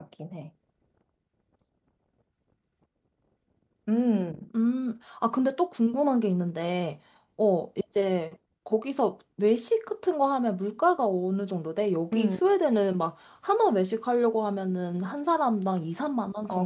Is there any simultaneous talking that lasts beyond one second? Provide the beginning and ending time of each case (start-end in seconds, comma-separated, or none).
none